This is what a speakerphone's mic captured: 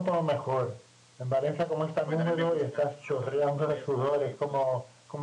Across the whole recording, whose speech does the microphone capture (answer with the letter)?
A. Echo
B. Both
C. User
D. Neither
B